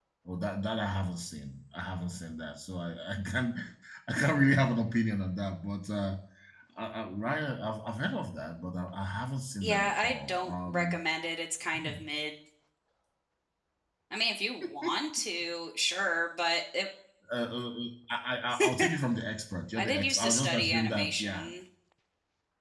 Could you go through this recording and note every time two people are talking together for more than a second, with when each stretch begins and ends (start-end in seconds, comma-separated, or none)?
9.6-11.0, 19.8-21.5